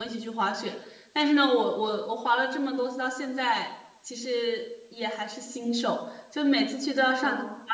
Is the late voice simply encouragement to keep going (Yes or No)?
Yes